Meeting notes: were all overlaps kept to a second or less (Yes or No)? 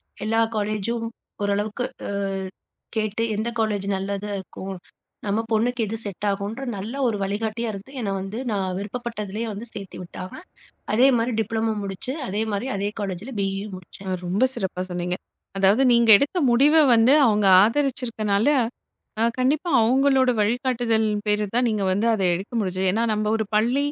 Yes